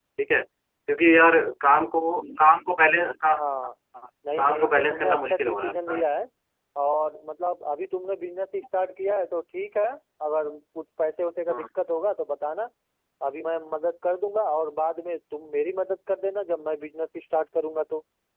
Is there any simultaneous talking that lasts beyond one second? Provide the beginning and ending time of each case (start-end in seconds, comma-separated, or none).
4.3-6.0